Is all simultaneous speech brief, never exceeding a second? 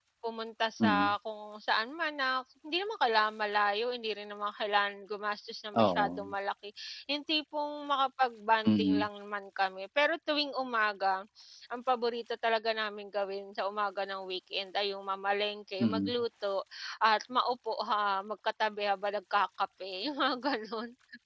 Yes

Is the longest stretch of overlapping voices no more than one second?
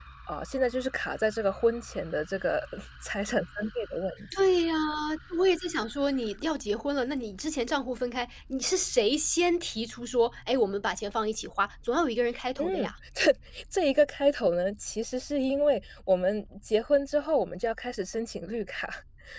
Yes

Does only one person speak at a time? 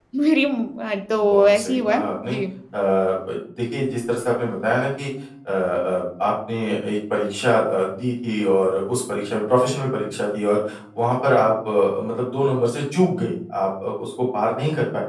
No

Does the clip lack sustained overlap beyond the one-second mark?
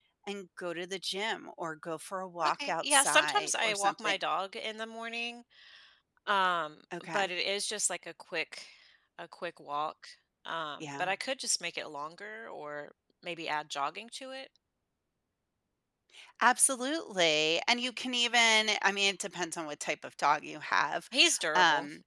No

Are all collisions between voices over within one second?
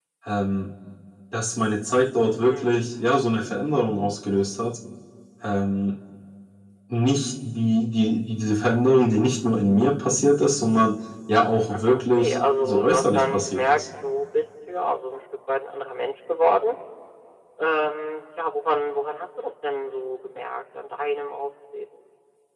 No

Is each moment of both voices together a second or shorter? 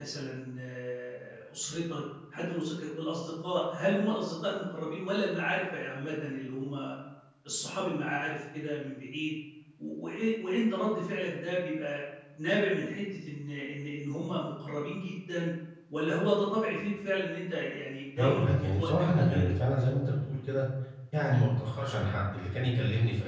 No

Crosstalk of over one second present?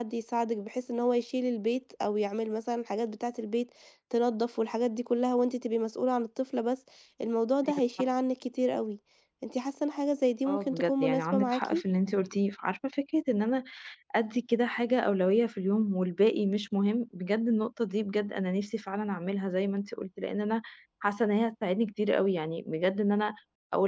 Yes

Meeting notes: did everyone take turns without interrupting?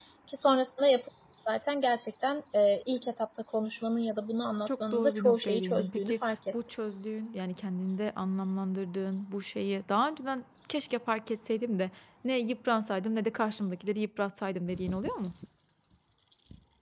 No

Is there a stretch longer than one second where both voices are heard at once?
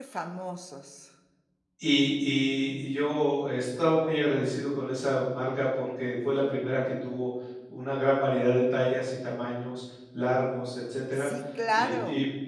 No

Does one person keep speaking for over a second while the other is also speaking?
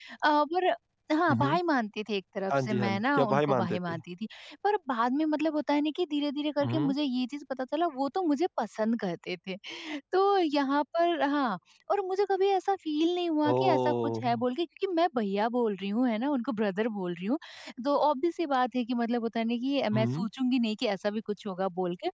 Yes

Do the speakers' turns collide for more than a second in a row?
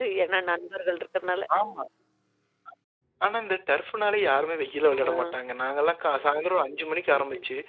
No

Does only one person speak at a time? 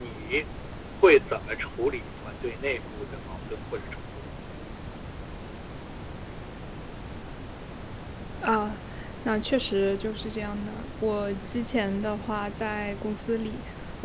Yes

